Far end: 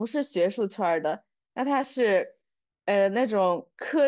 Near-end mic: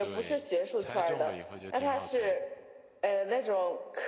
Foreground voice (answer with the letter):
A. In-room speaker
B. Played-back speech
B